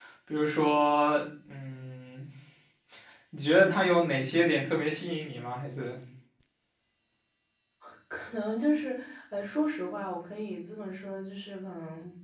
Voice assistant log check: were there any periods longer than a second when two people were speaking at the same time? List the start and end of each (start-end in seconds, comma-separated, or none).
none